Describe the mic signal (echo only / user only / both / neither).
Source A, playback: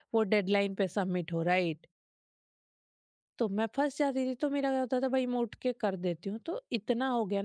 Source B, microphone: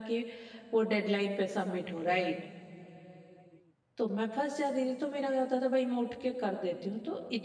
echo only